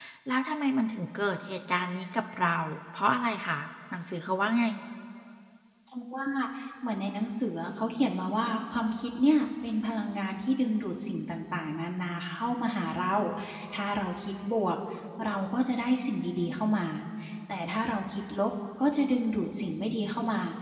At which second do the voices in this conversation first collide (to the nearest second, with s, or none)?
none